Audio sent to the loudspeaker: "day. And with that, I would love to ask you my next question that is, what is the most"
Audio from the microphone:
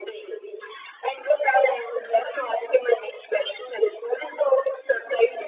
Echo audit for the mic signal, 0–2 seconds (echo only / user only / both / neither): echo only